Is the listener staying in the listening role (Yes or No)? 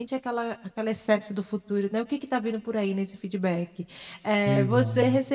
Yes